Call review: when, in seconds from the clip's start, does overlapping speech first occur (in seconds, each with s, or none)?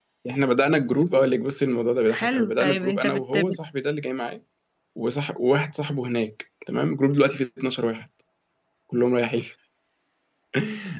2.1 s